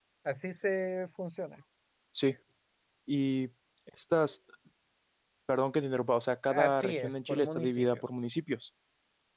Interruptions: present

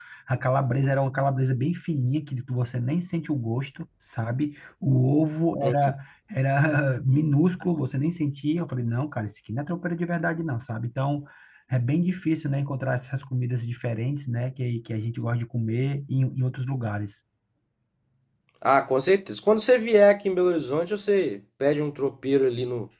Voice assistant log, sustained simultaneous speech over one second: none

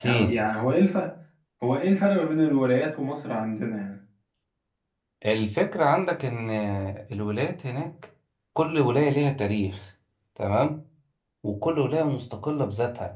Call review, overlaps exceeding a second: none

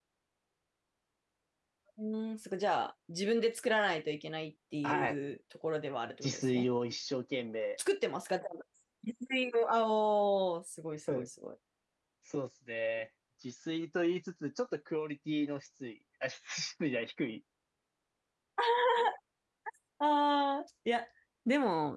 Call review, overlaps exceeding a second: none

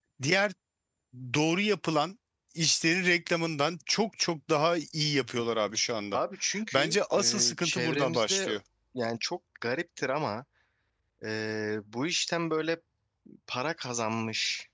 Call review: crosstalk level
present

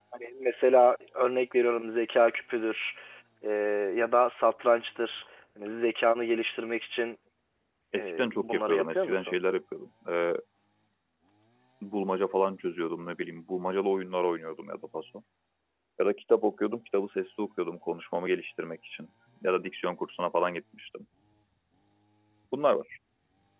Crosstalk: present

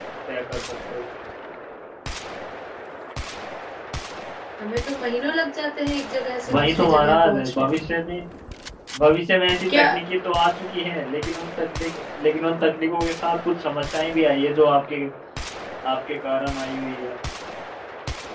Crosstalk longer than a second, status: present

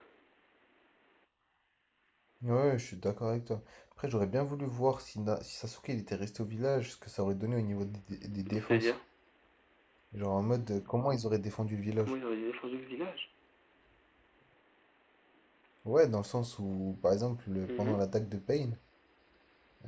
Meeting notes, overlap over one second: none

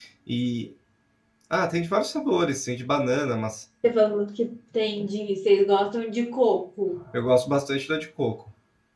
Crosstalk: none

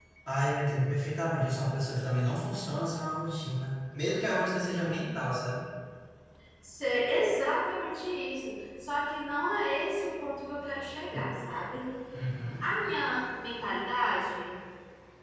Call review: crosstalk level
none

